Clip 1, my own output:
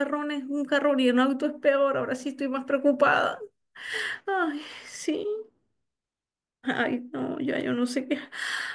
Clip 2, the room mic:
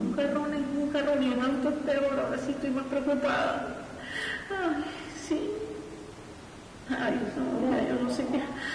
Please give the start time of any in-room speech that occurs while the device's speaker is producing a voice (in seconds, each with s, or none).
7.0 s